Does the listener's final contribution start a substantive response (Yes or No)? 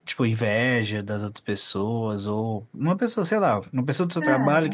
No